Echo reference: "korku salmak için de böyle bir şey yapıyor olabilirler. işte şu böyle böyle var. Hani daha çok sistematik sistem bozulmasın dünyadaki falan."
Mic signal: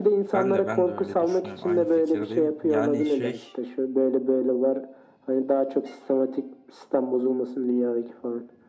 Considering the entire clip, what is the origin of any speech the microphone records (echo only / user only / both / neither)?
both